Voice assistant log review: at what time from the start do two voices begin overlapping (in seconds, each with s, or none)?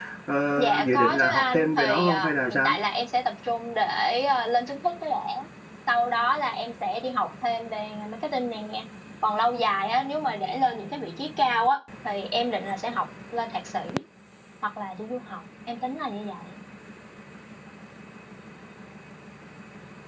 0.6 s